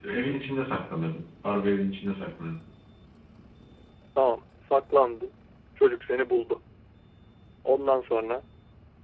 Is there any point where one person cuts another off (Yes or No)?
No